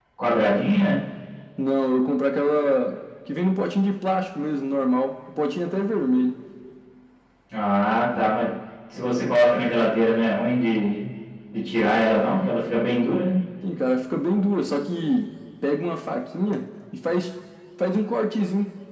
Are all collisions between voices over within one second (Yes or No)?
Yes